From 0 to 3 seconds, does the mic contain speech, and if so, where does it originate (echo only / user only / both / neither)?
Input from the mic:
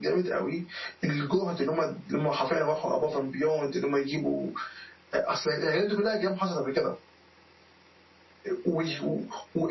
echo only